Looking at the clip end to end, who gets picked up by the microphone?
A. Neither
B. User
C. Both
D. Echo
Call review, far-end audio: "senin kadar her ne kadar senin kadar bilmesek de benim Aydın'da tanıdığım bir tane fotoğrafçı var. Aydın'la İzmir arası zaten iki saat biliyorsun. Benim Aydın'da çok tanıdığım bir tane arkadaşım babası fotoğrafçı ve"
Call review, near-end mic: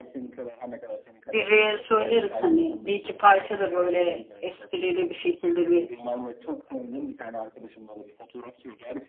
C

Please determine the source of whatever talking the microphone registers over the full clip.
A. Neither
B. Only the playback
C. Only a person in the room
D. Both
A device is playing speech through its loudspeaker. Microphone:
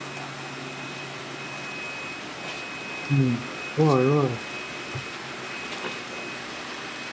C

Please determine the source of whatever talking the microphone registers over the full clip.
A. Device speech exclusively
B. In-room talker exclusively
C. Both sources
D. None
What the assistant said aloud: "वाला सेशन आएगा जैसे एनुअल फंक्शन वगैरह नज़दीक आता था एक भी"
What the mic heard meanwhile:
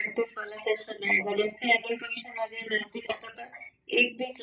A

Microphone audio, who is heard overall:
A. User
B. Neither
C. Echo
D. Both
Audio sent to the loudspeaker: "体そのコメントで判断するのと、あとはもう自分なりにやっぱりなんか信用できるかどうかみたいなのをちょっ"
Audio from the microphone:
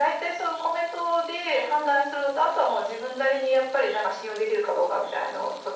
C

